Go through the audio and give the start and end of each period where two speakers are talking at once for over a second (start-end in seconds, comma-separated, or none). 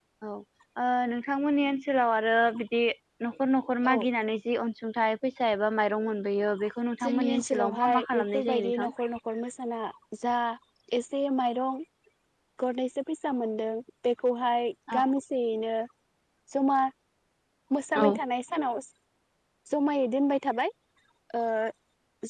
7.0-8.9